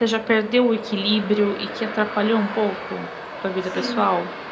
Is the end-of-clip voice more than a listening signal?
Yes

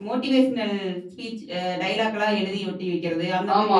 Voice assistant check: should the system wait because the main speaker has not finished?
No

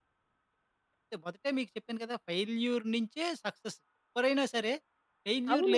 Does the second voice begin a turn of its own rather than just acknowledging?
Yes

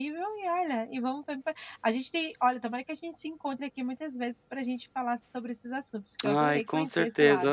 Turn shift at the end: Yes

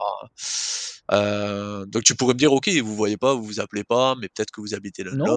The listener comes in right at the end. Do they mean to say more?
Yes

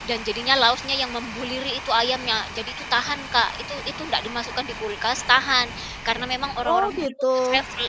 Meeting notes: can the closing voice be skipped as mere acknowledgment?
Yes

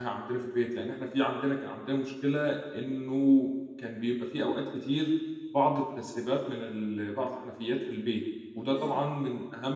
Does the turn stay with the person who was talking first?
Yes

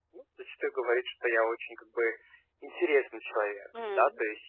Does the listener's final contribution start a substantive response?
No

